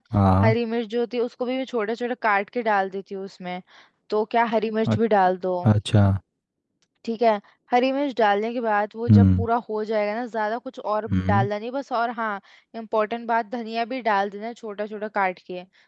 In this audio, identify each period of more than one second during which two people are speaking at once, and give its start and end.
none

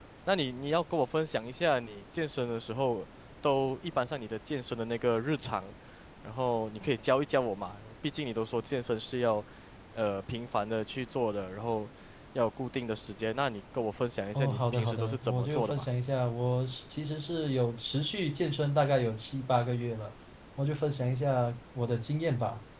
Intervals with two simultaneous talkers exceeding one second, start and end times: 14.3-15.9

